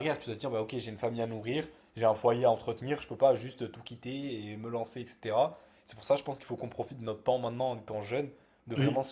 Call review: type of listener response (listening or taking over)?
listening